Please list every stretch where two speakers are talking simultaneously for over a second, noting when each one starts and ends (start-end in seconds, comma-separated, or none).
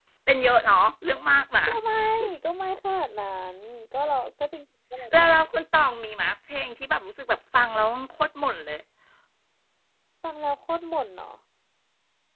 none